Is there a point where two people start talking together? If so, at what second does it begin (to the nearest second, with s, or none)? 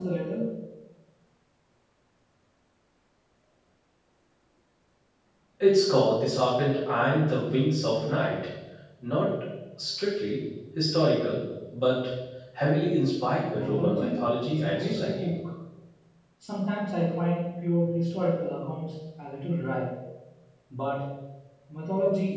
14 s